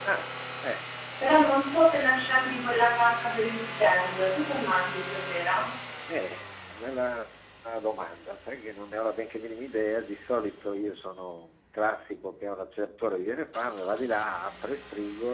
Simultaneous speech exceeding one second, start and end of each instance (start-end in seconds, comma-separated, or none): none